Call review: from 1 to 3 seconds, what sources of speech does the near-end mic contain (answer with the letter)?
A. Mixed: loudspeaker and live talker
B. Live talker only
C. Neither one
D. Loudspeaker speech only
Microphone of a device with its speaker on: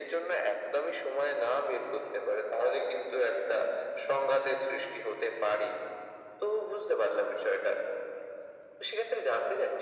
D